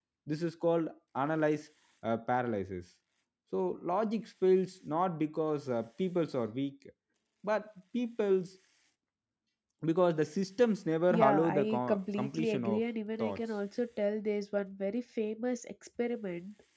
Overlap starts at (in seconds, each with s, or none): 11.1 s